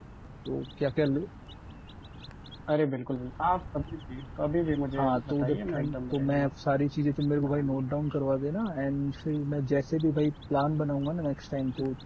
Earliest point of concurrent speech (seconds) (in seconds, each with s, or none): 5.0 s